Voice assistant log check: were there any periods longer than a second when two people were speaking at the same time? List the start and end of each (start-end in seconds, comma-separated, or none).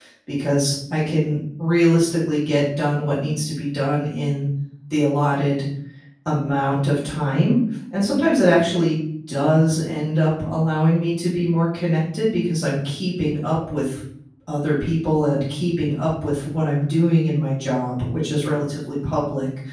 none